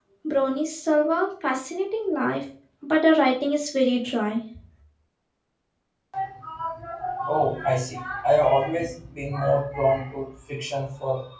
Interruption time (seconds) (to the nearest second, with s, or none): none